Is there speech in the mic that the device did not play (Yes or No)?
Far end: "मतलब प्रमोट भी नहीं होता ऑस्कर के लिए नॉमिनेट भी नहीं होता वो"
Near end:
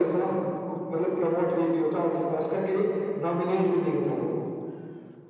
No